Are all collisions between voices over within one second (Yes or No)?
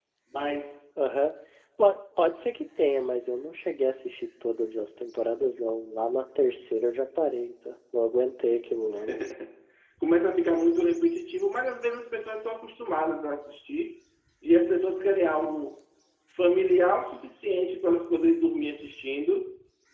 Yes